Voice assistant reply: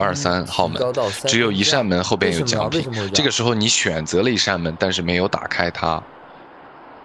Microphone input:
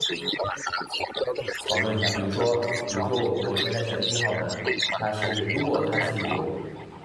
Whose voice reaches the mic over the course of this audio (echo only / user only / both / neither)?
both